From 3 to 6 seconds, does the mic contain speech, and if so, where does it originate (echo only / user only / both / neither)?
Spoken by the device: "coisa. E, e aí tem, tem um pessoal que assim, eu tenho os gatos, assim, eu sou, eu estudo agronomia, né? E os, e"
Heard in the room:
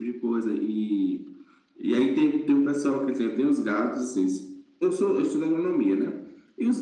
echo only